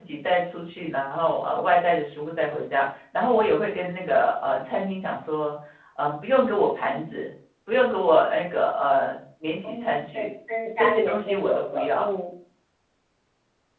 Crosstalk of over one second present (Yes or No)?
Yes